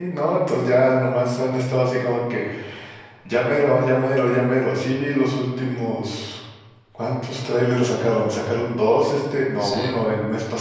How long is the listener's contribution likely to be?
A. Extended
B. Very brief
B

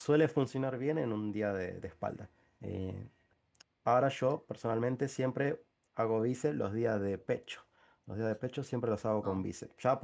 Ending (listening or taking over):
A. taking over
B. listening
B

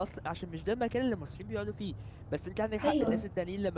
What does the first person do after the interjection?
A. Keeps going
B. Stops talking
A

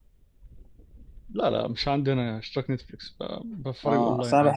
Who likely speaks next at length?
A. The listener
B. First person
A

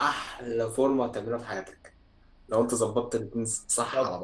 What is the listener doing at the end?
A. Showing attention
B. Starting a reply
B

